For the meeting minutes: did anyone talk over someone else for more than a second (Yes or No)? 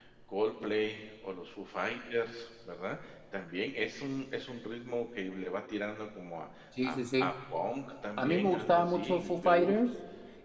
Yes